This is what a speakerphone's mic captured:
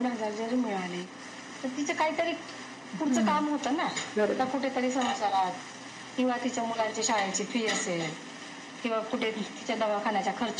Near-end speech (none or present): present